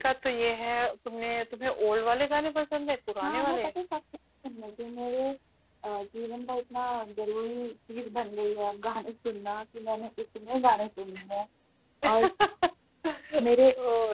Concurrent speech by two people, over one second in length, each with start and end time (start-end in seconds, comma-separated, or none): none